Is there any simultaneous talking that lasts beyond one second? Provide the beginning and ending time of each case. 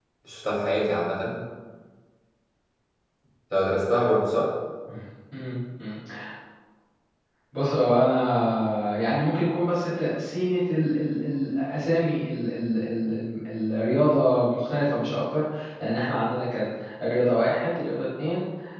none

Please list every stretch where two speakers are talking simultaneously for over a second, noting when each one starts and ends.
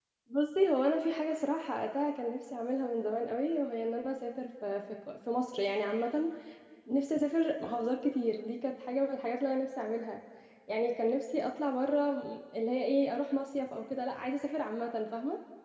none

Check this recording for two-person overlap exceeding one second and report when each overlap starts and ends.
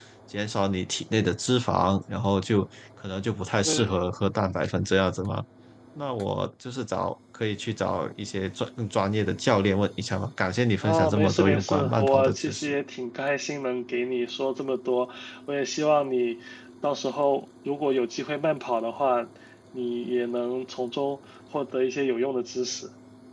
10.8-12.7

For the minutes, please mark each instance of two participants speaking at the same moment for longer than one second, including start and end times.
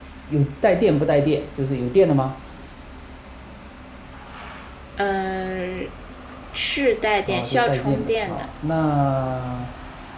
7.3-8.5

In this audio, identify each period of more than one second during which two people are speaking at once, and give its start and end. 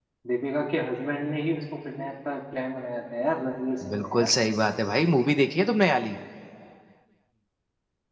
none

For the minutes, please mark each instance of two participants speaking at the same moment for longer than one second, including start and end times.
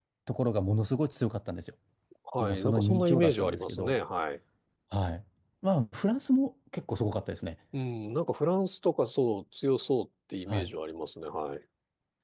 2.4-4.0

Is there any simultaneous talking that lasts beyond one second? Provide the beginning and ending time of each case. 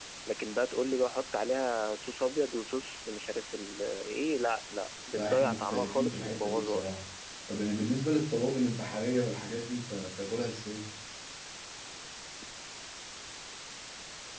5.1-6.9

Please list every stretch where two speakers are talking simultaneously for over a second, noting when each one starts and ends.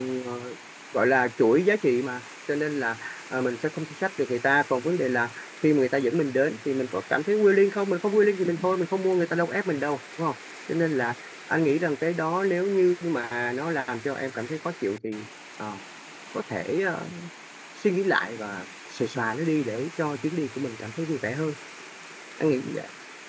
none

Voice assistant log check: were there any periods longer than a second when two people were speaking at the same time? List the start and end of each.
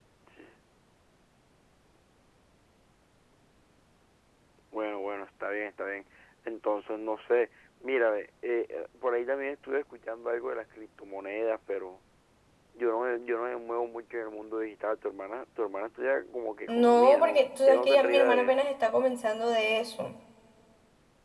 16.7-18.7

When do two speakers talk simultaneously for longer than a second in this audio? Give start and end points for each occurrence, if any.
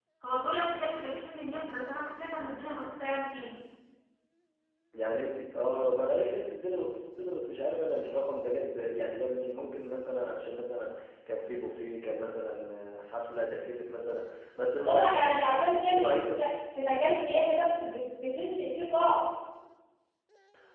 14.9-16.2

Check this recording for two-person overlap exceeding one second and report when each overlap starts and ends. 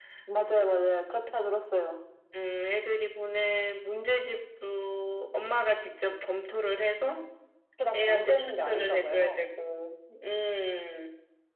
7.9-9.4

